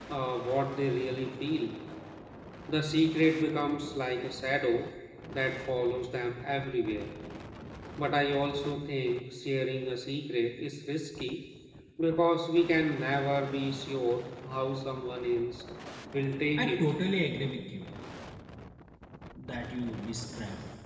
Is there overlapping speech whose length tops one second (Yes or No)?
No